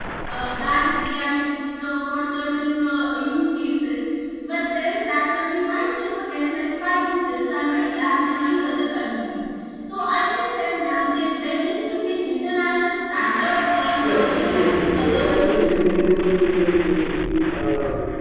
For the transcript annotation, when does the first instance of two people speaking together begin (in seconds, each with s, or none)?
14.0 s